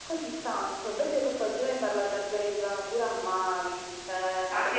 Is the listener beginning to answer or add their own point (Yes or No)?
Yes